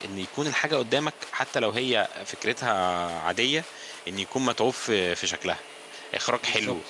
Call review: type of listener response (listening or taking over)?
listening